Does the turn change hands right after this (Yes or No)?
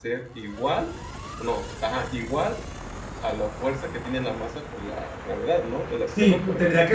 Yes